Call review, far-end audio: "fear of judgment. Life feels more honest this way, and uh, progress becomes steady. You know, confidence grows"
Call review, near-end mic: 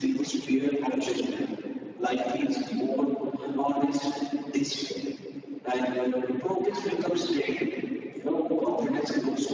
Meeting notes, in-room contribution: none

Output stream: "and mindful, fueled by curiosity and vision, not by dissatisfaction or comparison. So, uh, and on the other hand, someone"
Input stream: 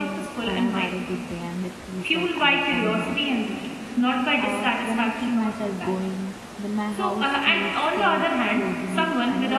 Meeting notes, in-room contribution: present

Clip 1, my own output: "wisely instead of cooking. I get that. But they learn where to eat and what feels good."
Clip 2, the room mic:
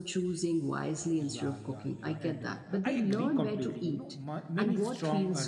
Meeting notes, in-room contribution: present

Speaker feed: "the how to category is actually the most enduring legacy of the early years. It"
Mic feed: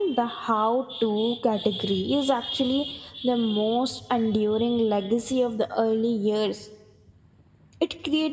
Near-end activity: none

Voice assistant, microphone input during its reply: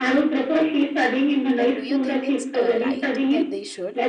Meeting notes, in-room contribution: present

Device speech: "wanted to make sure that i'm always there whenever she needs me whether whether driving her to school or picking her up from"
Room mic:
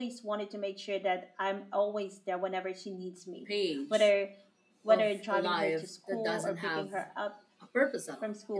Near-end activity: present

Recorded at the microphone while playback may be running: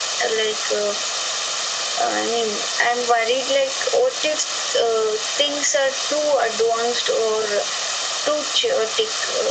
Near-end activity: none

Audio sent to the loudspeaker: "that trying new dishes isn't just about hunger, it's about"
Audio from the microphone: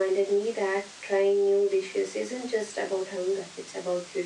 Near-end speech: none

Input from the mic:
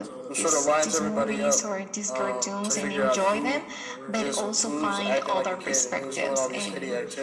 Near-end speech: present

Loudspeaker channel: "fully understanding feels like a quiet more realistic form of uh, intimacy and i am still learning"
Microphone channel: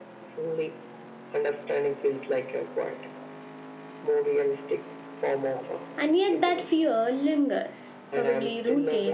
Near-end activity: present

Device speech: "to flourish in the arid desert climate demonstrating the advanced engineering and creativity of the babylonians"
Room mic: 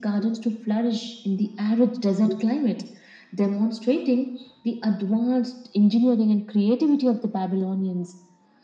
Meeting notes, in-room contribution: none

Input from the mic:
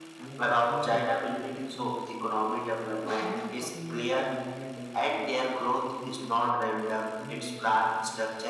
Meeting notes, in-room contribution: present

